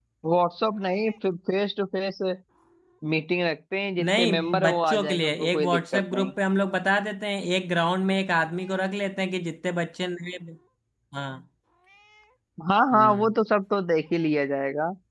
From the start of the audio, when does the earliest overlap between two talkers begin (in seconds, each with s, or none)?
4.0 s